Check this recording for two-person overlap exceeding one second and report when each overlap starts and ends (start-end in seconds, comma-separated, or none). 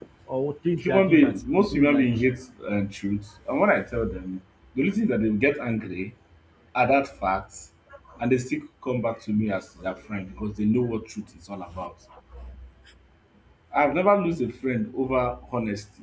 0.8-2.1